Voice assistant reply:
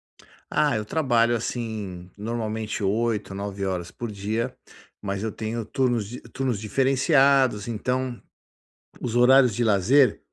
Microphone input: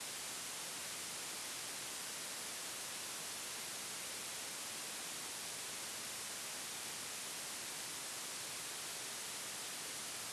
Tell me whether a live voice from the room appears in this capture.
No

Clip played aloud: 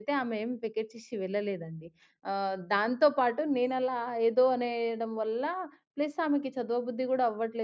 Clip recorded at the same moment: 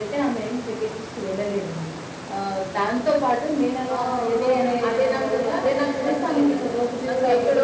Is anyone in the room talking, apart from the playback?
Yes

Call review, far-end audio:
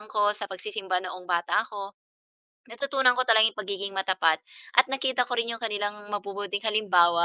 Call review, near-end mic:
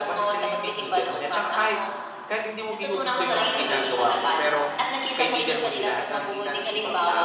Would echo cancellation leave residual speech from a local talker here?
Yes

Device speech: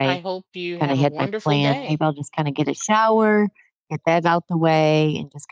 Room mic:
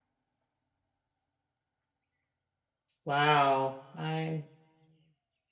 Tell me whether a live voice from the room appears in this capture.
Yes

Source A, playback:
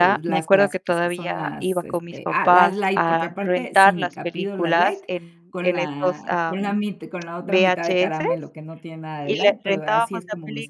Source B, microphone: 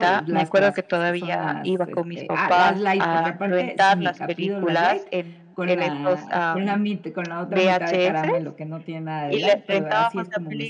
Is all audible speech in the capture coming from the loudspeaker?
Yes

